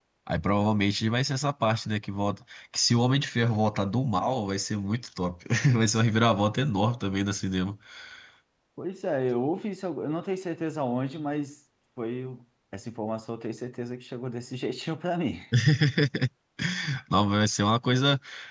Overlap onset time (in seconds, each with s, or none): none